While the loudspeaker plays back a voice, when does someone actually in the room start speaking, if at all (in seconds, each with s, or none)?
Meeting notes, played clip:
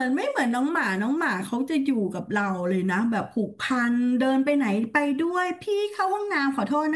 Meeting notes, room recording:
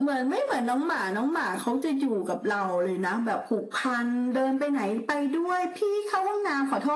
none